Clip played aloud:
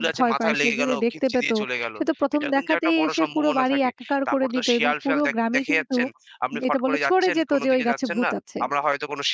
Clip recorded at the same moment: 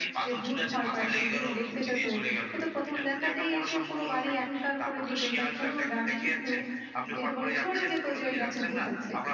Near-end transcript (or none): none